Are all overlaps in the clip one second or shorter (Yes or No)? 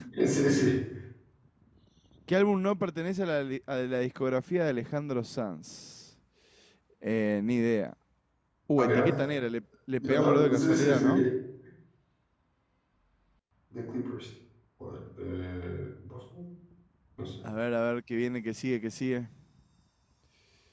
No